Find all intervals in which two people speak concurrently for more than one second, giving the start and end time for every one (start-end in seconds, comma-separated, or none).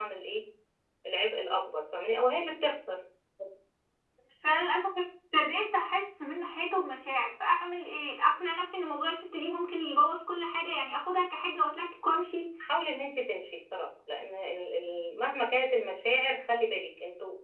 none